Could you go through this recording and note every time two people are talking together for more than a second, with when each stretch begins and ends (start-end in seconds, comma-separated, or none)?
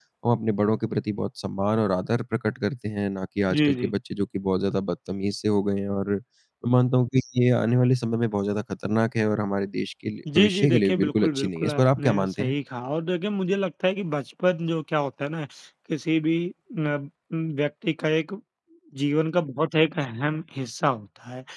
10.4-12.5